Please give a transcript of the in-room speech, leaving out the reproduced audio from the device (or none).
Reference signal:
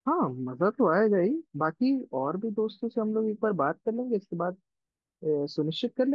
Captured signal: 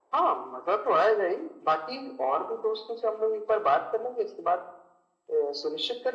none